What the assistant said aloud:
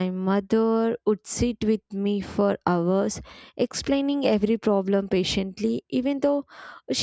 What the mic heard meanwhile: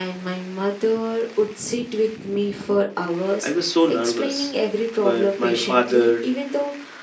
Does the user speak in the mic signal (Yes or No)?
Yes